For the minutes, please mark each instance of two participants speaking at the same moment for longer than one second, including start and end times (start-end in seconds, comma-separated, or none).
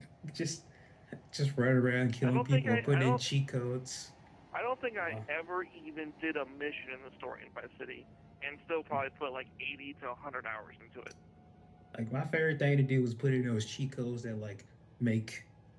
2.2-3.5